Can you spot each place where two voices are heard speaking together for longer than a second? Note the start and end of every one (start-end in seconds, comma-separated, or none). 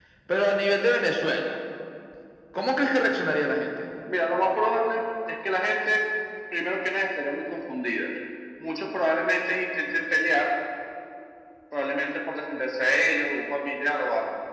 none